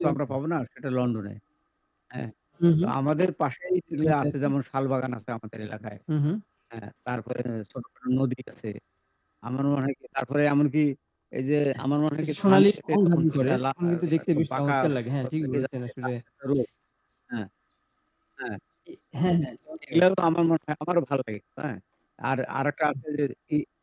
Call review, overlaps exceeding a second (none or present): present